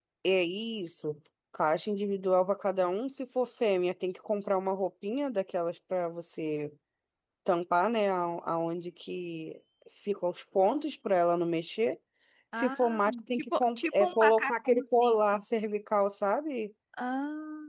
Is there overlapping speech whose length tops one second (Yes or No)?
Yes